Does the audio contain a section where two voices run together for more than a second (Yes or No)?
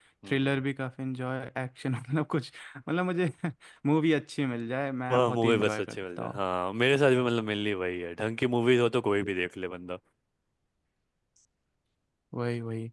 Yes